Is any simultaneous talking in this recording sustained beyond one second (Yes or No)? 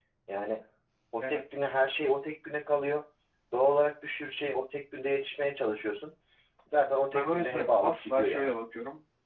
Yes